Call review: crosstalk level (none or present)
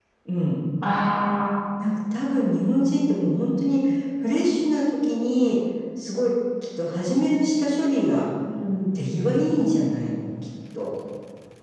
none